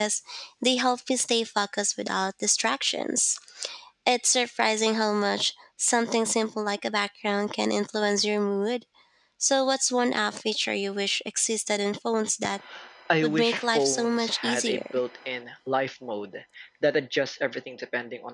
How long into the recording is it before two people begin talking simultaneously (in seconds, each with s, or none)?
13.2 s